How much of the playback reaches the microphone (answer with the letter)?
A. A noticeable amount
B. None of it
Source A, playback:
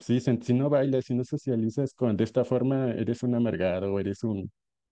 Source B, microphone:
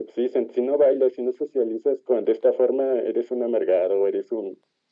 A